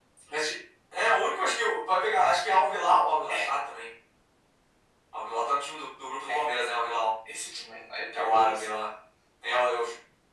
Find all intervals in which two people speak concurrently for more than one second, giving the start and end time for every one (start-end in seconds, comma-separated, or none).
none